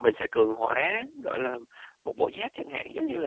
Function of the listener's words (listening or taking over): taking over